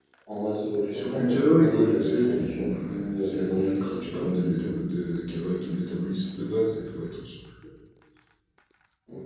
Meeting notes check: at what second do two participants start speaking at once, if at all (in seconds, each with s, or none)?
0.9 s